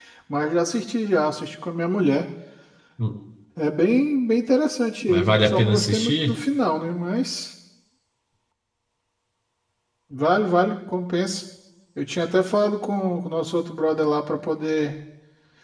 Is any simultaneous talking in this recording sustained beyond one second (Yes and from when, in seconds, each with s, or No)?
Yes, from 5.1 s